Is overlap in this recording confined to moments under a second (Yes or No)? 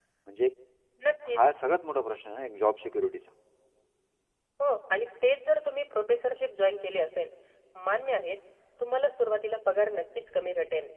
Yes